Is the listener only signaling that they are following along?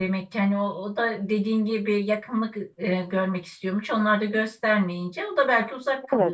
No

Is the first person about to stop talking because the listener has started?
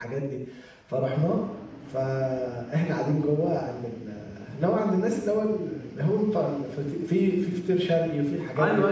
Yes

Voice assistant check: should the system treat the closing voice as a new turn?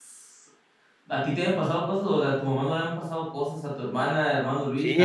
Yes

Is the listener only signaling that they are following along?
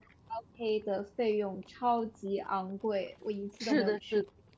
No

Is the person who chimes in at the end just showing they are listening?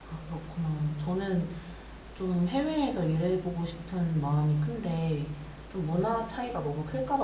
Yes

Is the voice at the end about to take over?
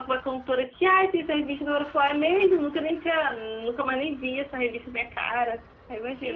Yes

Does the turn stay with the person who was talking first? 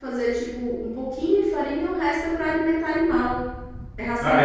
No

